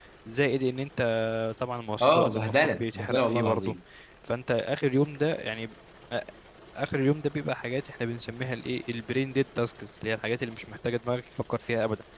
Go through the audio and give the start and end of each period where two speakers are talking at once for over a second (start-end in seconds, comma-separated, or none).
2.0-3.7